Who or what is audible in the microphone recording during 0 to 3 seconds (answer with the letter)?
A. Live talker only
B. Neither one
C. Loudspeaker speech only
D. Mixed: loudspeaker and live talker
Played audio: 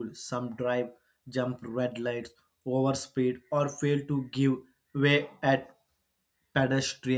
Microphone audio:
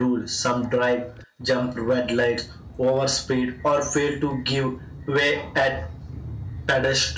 C